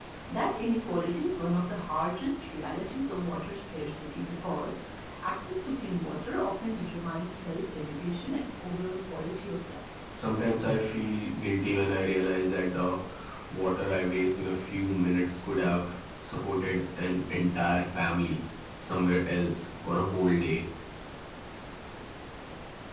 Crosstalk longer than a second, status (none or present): none